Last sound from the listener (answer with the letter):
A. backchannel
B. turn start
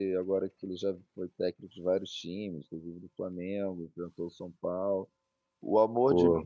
A